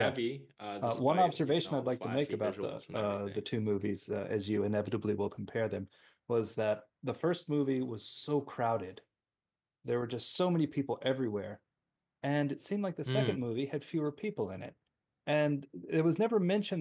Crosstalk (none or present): present